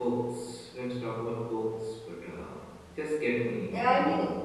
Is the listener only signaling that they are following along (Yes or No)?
No